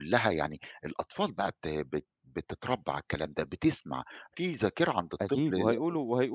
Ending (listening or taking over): taking over